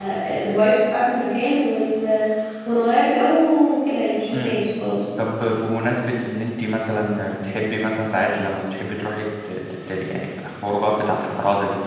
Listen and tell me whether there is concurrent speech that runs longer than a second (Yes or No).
No